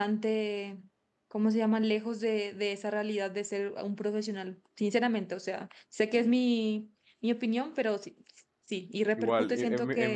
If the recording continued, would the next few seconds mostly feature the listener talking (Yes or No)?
Yes